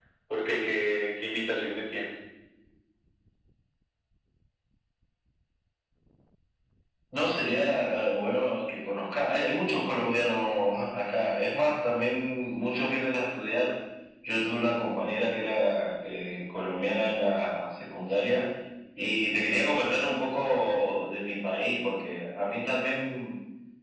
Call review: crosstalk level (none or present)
none